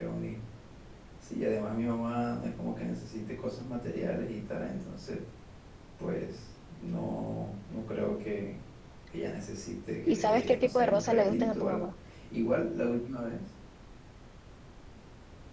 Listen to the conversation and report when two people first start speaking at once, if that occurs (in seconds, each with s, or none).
10.1 s